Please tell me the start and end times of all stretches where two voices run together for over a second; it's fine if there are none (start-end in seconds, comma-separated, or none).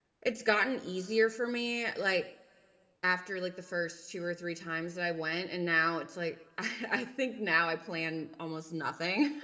none